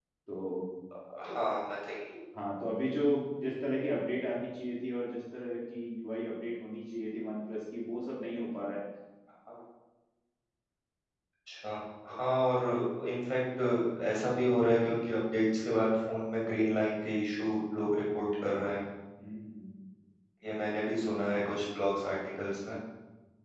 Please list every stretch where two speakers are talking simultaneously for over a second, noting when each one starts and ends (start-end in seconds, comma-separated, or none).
none